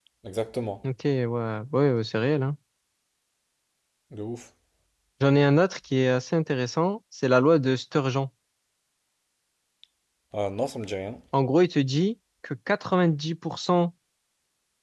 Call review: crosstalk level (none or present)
none